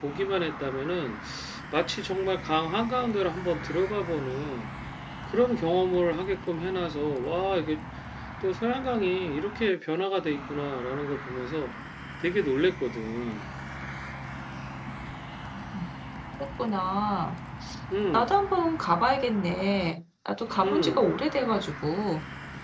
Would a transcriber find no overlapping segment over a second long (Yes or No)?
Yes